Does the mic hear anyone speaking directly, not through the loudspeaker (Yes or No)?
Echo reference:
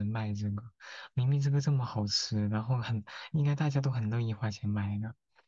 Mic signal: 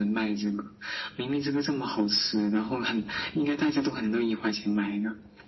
No